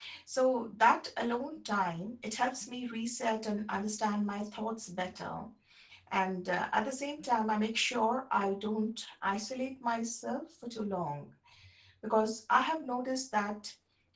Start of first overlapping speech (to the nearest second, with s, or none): none